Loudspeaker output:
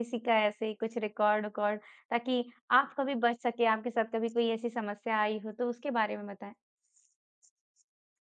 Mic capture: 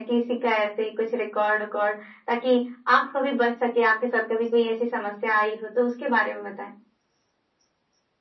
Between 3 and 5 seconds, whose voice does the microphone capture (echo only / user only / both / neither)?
echo only